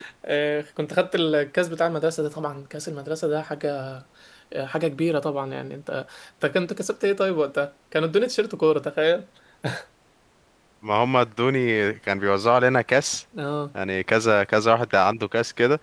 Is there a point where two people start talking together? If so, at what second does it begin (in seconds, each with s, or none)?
none